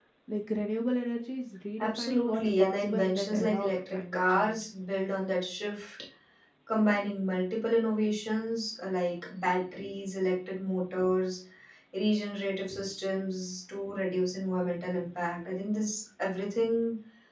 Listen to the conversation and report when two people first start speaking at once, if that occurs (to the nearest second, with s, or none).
2 s